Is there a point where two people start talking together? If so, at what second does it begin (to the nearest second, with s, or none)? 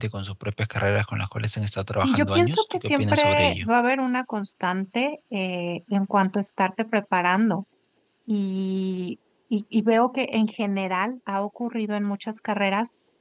2 s